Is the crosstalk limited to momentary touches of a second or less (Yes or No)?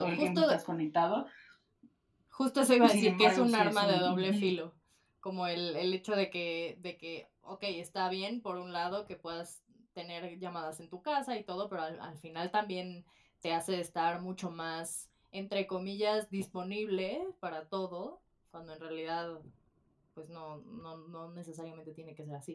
No